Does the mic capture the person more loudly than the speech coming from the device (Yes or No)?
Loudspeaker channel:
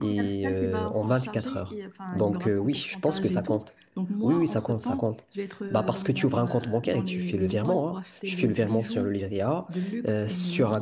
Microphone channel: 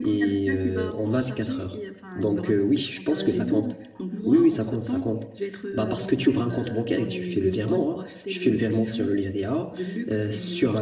No